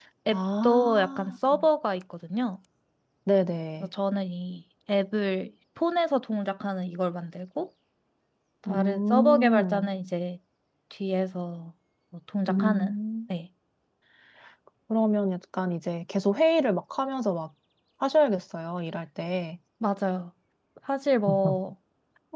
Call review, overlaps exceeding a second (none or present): present